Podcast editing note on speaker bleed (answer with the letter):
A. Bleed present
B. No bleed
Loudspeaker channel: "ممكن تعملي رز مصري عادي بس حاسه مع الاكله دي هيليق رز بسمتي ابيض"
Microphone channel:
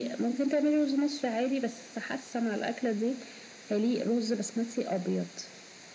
A